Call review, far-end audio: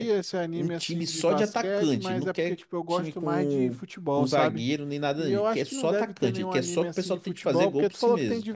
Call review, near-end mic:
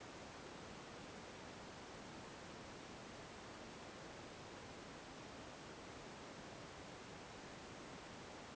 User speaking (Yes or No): No